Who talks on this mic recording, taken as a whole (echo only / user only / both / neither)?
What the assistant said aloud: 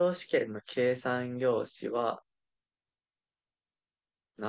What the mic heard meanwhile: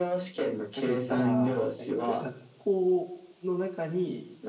both